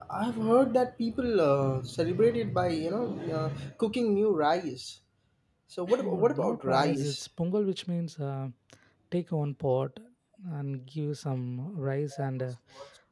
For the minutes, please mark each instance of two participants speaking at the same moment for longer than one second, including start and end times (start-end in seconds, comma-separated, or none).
6.0-7.3